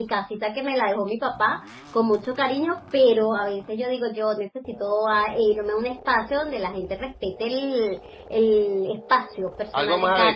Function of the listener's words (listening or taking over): taking over